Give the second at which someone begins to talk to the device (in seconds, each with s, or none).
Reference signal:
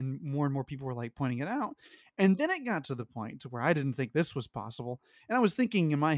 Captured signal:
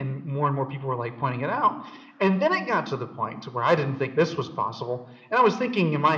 none